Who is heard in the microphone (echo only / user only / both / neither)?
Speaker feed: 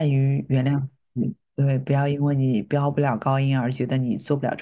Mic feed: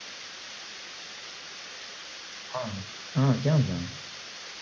user only